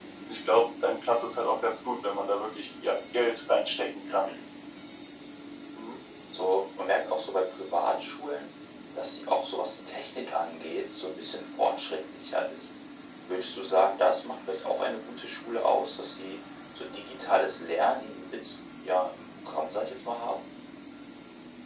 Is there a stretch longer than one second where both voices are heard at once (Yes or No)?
No